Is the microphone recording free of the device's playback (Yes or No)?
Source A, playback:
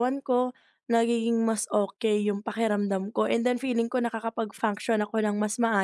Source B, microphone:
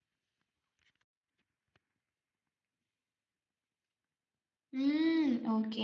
Yes